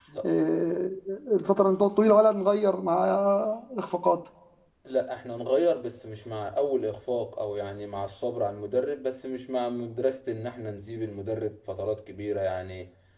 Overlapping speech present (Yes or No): No